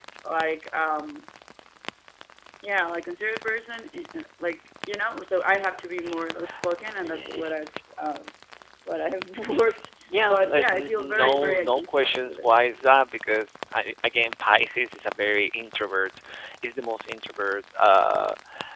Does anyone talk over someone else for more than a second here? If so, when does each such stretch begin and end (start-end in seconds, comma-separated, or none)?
10.2-12.5